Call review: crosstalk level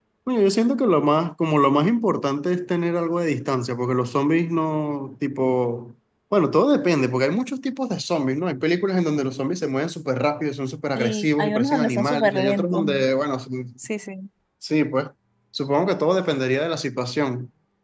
present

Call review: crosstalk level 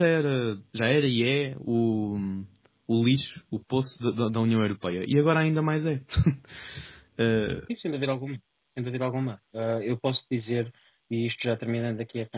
none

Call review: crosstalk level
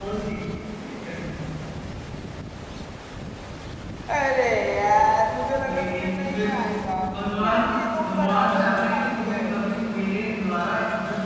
present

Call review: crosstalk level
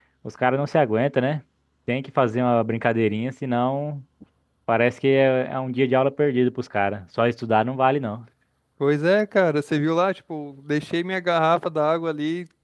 none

